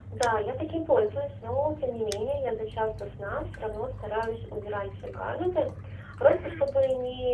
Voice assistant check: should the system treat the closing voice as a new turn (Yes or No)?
No